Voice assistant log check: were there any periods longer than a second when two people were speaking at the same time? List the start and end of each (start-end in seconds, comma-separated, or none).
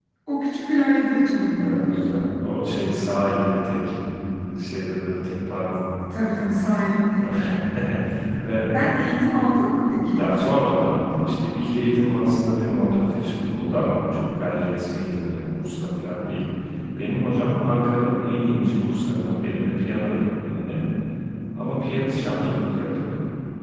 none